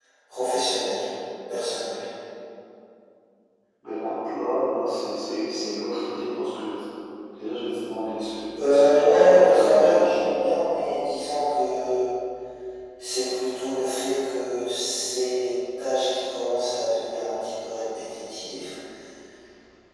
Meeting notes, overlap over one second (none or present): present